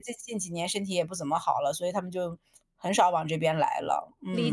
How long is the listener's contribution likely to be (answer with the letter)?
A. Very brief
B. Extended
B